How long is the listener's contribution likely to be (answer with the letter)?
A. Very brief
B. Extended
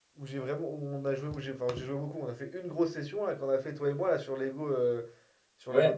A